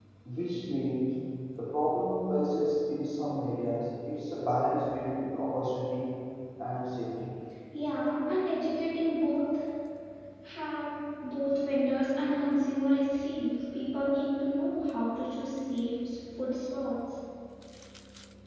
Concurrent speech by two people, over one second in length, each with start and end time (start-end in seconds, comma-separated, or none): none